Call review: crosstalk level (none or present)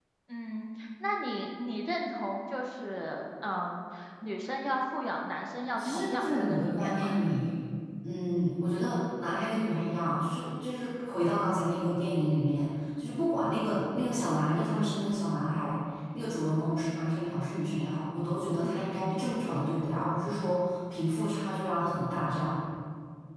present